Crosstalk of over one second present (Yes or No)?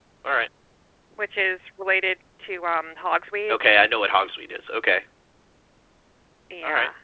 No